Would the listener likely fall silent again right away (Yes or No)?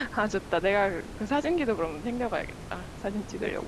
No